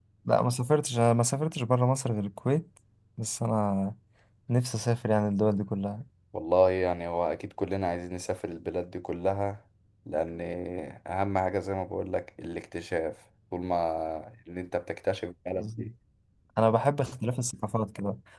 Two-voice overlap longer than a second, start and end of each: none

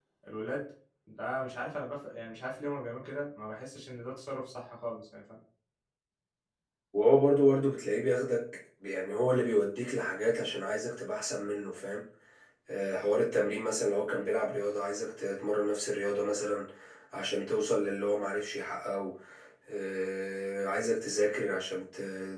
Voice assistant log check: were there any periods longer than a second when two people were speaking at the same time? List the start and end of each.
none

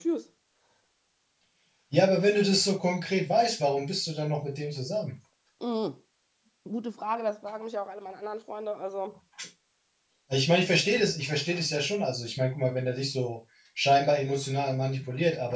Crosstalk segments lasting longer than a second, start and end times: none

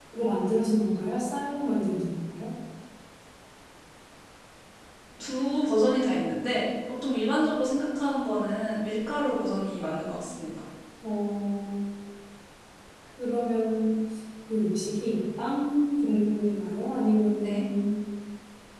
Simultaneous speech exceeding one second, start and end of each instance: none

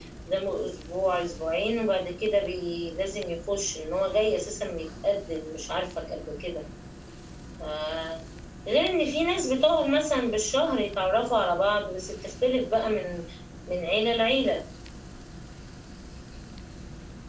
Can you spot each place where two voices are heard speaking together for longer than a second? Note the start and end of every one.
none

